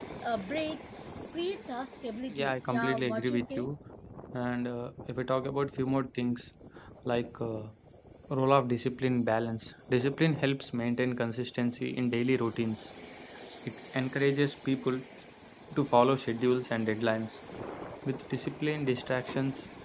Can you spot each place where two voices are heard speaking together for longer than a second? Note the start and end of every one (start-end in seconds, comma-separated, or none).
2.3-3.7